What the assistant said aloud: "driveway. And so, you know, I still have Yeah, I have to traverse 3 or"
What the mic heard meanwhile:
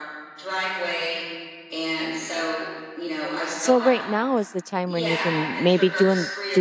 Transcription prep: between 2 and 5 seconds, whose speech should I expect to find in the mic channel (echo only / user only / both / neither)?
both